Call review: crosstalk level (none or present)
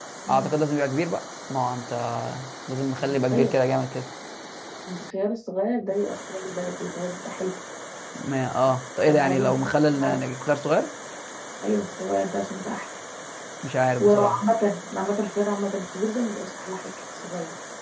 present